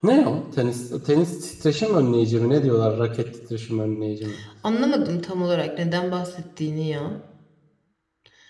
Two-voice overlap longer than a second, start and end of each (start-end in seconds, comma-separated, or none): none